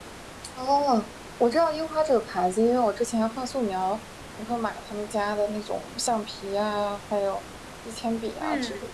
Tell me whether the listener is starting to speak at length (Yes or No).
Yes